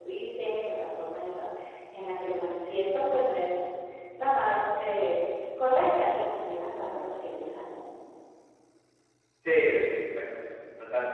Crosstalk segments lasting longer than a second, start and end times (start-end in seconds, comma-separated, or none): none